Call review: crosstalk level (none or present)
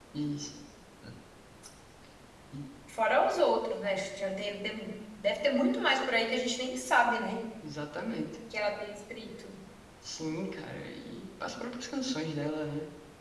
none